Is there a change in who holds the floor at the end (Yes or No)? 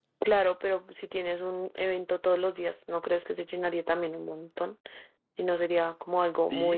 Yes